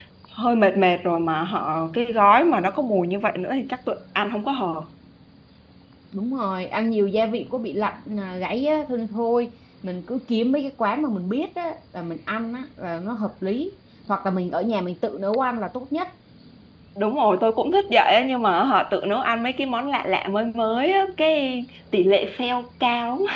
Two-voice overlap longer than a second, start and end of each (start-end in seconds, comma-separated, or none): none